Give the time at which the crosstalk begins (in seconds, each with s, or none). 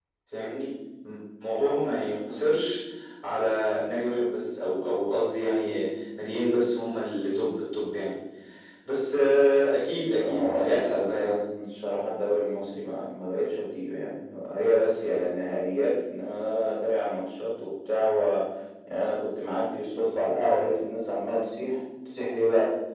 10.2 s